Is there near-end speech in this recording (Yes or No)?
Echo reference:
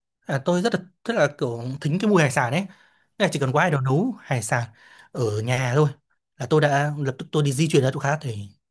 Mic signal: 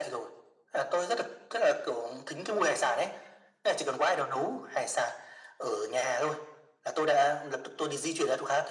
No